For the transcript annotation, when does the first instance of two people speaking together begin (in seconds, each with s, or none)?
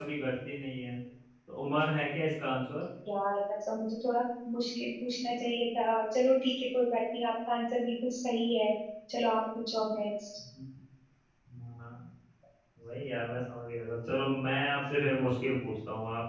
none